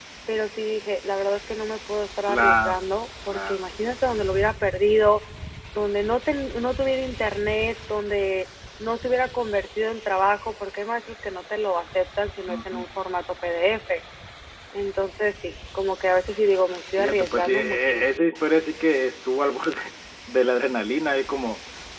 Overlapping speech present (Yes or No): Yes